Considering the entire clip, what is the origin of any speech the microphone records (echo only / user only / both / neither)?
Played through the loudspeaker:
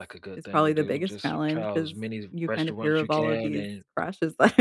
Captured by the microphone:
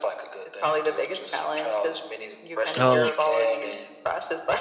both